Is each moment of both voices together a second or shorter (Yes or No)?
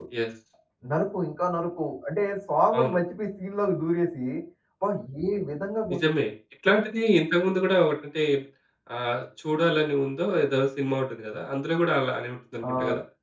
Yes